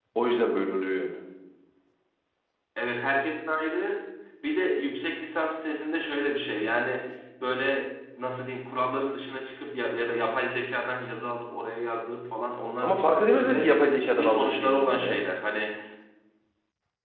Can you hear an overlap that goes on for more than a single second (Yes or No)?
Yes